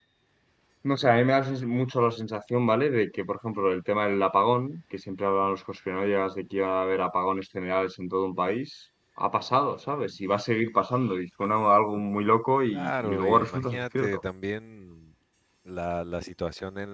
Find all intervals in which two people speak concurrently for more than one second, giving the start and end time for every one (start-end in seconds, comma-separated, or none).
12.7-14.2